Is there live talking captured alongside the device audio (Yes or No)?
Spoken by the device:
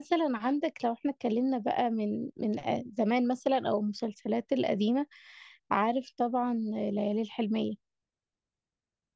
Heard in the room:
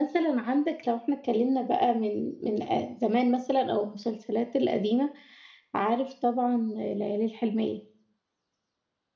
No